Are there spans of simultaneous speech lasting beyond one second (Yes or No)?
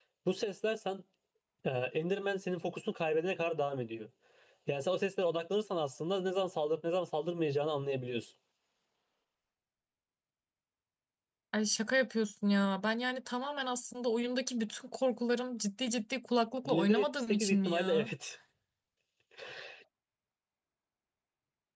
Yes